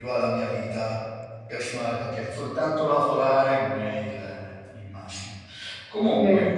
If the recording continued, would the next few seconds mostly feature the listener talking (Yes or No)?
No